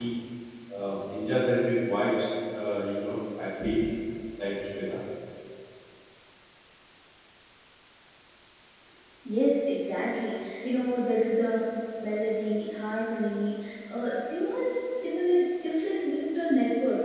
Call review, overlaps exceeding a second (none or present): none